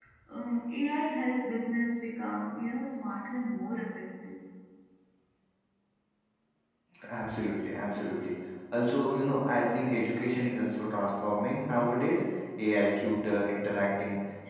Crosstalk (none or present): none